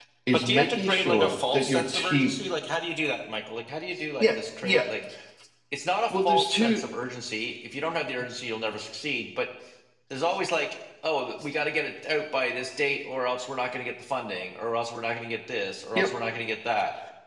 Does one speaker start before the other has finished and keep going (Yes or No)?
Yes